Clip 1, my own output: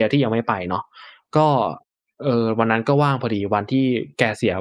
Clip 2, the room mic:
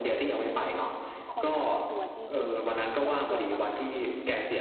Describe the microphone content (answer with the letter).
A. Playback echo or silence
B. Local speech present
B